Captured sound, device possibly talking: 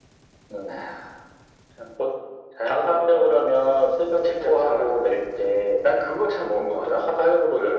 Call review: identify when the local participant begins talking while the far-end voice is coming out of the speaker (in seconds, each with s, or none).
none